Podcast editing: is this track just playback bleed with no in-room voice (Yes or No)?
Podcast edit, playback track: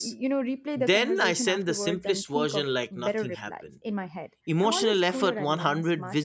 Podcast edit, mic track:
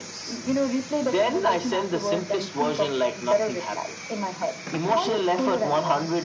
Yes